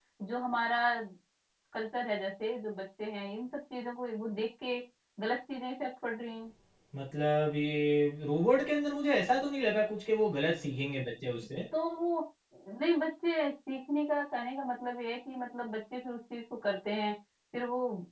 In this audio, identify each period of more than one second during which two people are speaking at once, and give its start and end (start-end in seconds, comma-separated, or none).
none